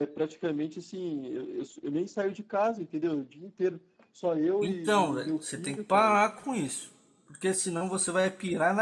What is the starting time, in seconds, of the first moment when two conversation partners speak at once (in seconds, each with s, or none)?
4.6 s